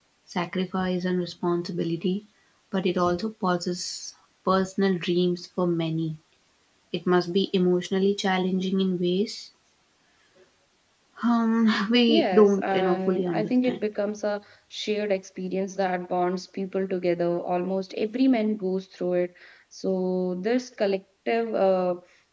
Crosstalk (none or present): present